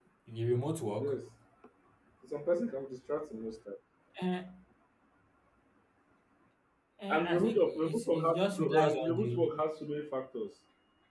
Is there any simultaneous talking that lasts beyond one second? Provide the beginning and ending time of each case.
7.1-9.5

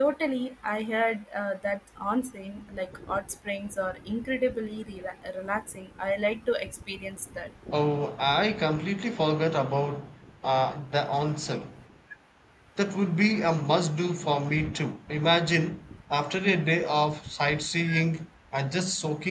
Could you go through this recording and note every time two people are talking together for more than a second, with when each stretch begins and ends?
none

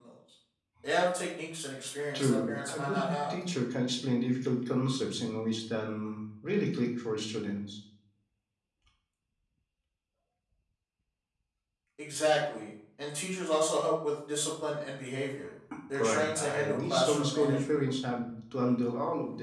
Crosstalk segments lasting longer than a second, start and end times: 2.1-3.4, 16.0-17.6

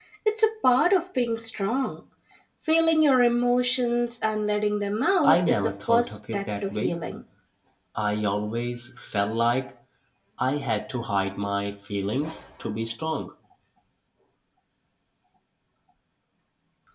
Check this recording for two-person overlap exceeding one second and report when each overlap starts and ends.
5.2-7.0

